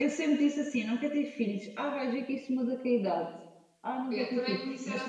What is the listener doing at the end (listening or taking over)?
taking over